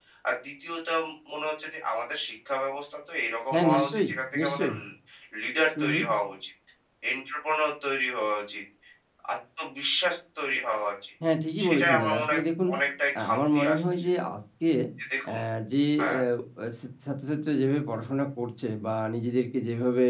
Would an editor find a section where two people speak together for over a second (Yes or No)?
Yes